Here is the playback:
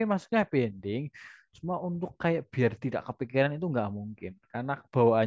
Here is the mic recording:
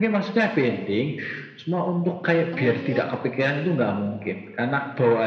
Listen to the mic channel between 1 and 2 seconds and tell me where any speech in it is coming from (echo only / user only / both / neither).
echo only